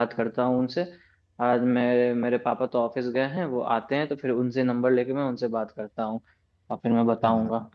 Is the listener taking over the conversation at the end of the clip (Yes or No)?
No